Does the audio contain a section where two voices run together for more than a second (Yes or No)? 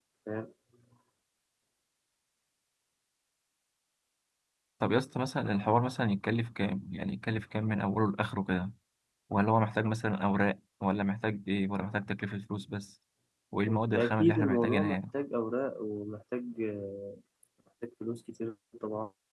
Yes